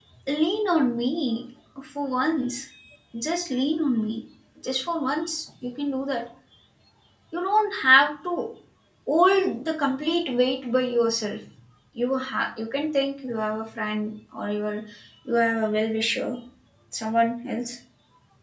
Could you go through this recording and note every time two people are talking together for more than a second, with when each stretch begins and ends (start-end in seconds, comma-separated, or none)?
none